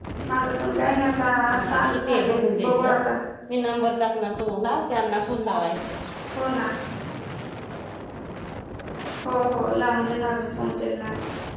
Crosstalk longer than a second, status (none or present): present